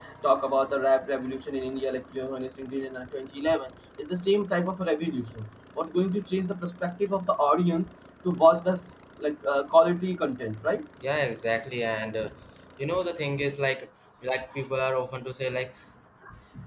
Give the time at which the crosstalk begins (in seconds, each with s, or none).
none